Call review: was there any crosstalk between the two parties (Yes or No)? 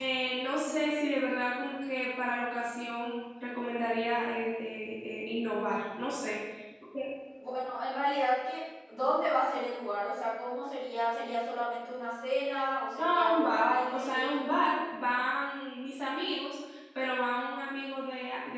Yes